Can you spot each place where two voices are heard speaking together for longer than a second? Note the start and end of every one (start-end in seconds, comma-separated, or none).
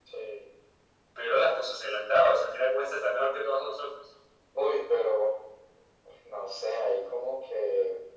none